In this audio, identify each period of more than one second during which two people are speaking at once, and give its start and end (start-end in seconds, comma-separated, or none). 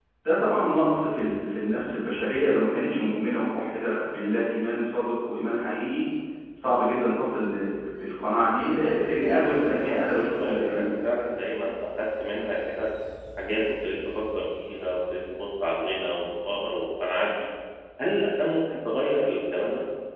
8.6-10.9